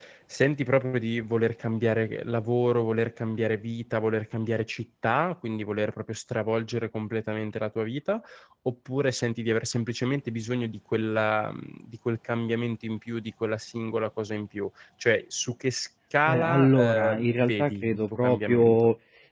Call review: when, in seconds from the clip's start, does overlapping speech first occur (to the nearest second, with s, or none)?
16 s